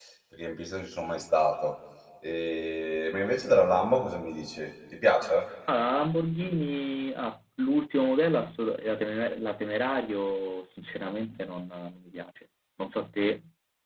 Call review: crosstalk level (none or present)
none